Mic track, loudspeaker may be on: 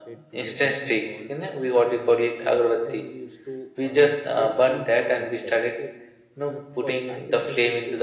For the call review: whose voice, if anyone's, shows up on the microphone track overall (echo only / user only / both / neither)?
both